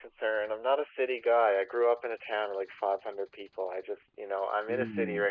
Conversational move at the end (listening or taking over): listening